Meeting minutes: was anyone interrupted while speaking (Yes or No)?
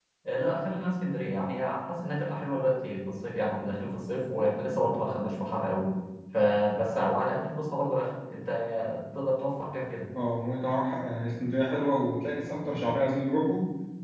No